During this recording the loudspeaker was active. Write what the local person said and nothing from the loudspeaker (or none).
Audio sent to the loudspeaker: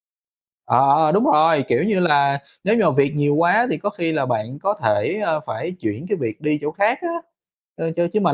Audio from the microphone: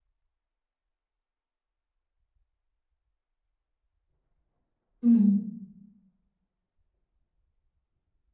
ừm,